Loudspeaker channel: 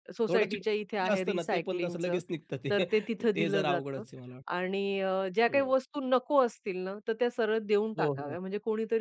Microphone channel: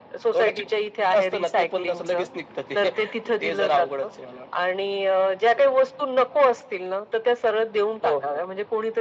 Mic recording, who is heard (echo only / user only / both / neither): echo only